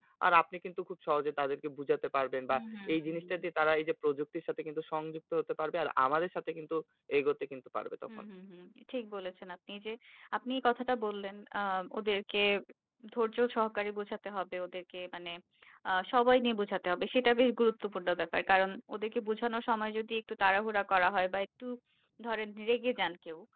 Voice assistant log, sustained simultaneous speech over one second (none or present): none